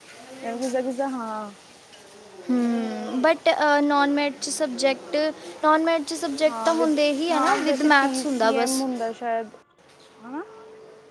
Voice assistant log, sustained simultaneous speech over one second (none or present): present